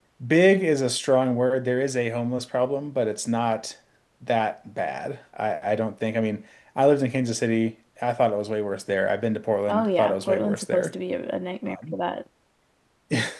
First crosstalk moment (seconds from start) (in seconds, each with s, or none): 9.7 s